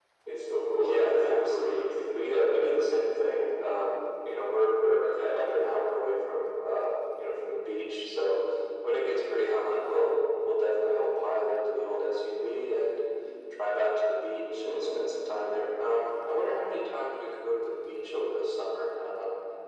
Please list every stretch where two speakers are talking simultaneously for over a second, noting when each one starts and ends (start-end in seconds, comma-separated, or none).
0.8-2.8